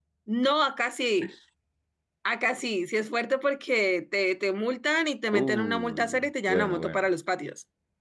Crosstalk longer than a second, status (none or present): present